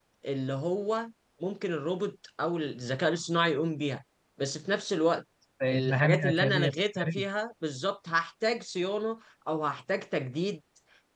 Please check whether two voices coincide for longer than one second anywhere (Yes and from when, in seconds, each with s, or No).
Yes, from 5.7 s